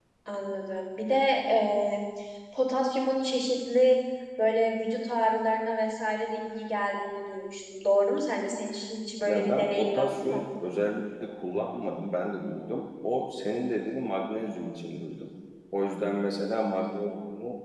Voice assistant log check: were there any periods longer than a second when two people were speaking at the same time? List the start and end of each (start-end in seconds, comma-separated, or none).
9.2-10.4